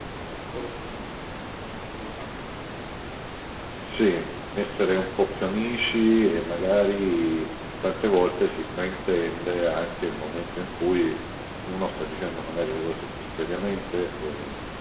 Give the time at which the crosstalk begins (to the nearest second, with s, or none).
none